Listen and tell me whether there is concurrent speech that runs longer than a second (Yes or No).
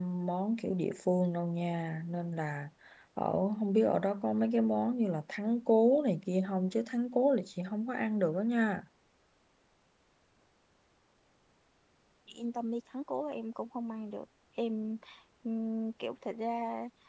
No